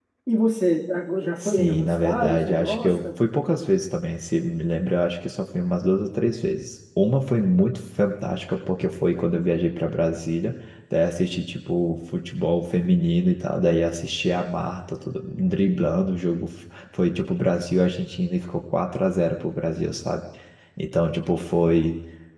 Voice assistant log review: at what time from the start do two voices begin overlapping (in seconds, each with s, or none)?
1.4 s